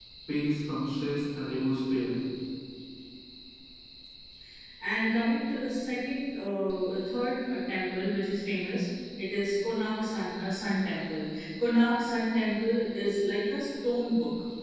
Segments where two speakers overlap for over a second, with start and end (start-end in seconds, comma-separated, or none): none